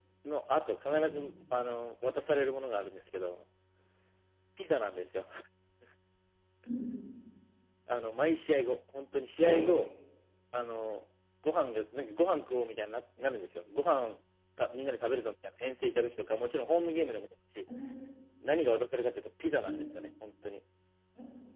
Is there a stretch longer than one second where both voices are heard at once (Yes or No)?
No